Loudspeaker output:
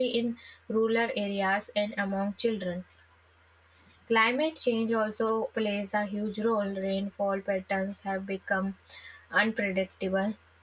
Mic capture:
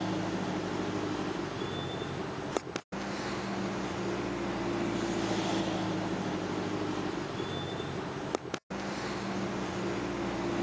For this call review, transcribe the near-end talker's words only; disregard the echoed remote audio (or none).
none